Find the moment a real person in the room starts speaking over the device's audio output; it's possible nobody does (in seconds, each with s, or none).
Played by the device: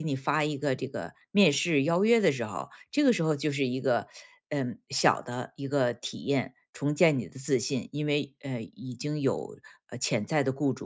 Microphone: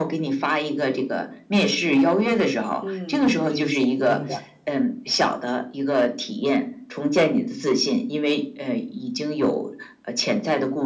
2.8 s